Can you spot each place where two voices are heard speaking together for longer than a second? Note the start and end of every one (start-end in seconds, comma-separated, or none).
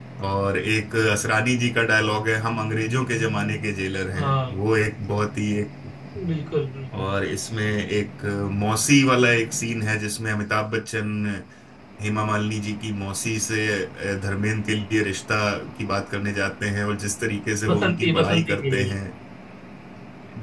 17.7-18.9